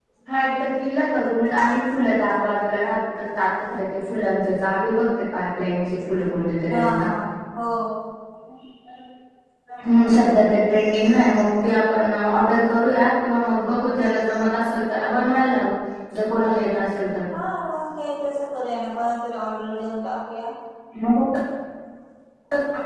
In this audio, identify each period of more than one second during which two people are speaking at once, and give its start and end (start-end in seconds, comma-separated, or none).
none